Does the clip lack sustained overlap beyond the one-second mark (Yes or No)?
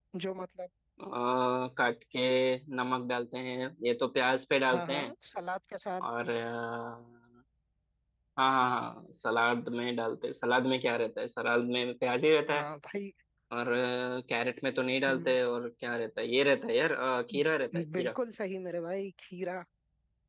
Yes